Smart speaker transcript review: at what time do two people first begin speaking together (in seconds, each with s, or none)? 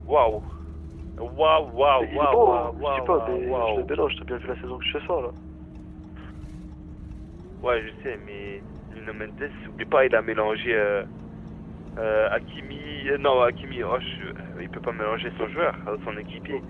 2.0 s